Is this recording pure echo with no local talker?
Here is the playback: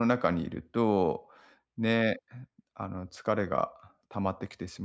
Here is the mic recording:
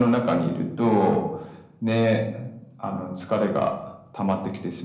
Yes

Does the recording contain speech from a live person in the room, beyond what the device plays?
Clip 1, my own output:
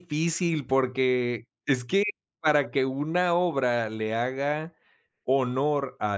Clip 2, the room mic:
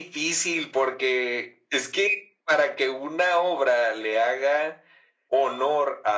No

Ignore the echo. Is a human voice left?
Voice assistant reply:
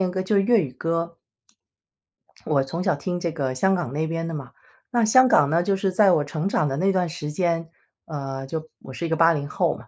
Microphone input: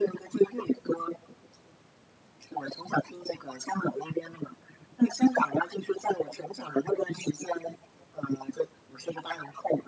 No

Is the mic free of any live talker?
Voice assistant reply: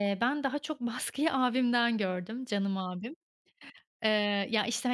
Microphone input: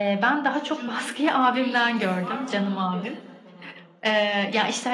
No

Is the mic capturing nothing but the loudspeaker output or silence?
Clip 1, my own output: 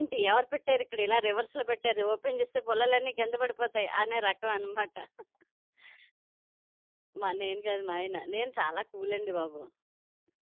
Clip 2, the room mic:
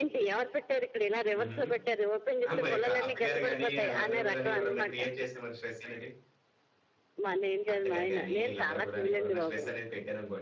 No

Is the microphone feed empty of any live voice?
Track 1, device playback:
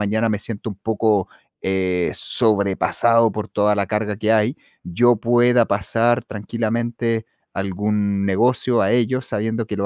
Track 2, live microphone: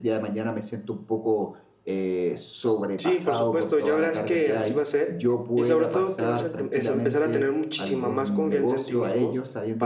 No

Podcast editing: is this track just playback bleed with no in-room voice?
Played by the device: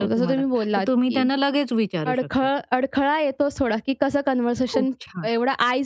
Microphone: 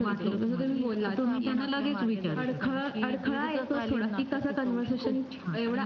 No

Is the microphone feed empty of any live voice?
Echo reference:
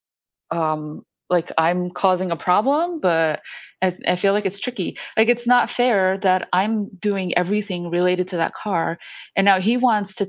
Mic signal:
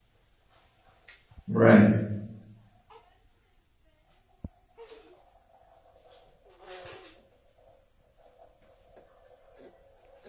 No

